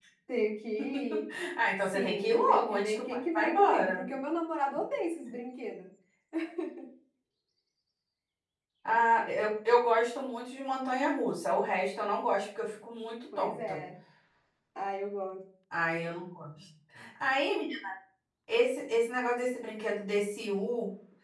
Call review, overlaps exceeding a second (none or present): present